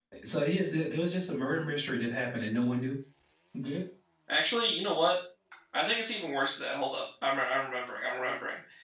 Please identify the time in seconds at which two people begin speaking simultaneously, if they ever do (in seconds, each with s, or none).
none